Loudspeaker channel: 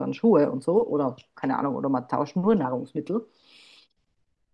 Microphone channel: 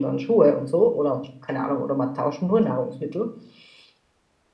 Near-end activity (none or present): none